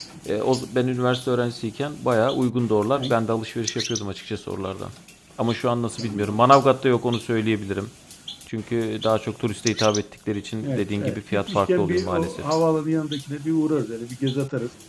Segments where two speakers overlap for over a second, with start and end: 10.6-12.4

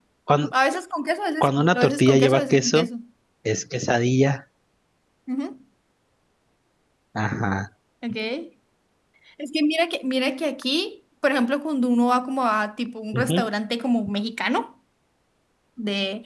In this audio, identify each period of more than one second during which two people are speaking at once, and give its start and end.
1.4-2.9

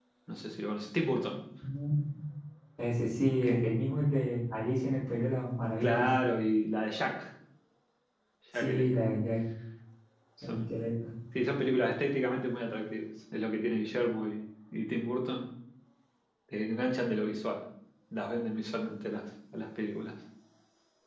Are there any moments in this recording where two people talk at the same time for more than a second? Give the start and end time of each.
none

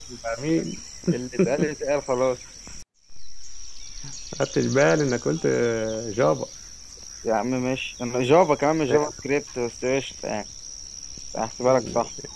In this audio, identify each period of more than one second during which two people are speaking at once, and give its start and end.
none

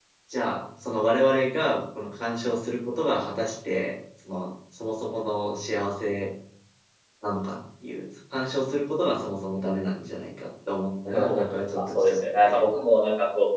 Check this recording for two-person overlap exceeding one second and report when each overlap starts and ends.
11.1-12.6

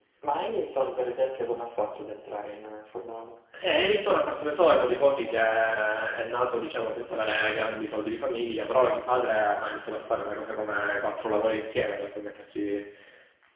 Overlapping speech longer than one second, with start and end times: none

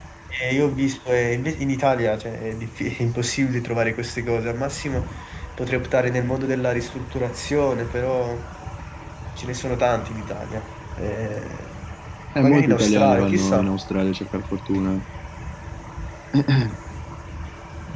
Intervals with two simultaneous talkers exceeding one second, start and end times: 12.4-13.7

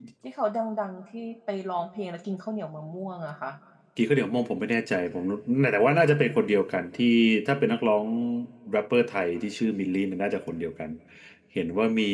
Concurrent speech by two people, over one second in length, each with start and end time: none

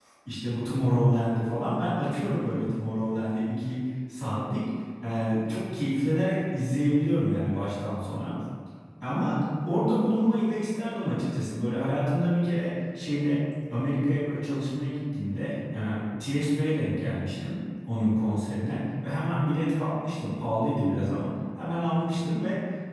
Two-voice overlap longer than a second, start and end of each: none

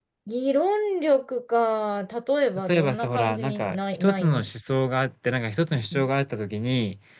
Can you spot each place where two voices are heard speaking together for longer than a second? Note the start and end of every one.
2.7-4.5

